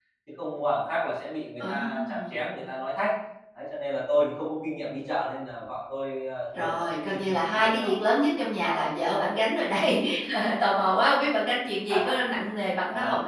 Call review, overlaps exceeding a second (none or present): present